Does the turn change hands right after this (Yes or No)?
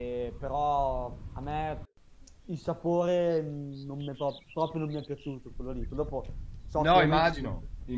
Yes